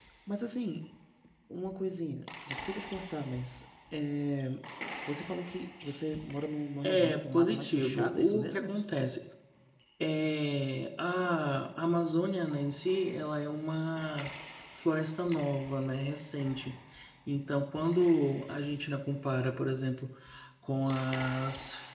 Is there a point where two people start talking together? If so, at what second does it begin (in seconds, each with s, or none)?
6.8 s